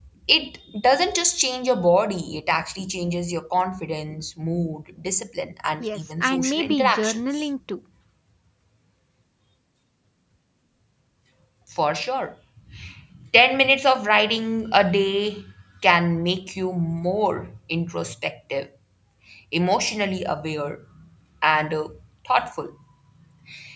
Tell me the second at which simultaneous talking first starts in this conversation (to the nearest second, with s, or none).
6 s